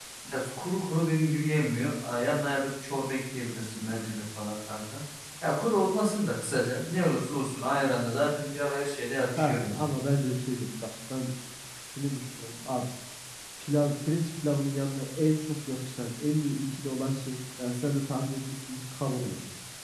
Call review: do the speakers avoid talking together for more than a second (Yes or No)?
Yes